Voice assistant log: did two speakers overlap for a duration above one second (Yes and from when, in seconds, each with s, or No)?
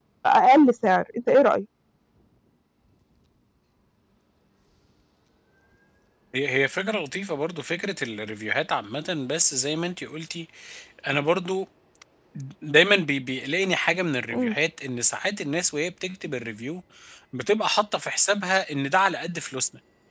No